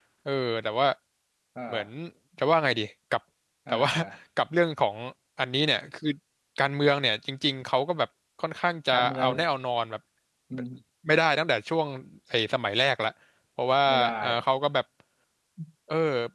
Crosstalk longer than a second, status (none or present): none